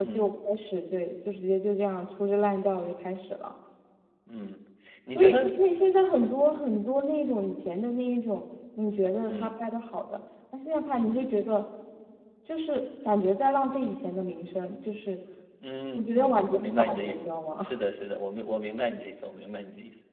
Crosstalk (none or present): present